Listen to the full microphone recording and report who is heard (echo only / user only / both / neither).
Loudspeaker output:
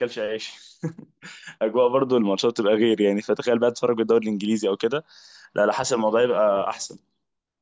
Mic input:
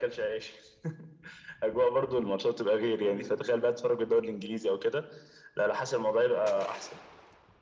both